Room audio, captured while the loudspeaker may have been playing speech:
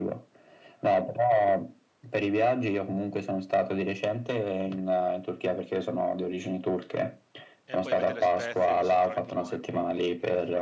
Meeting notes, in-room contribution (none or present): present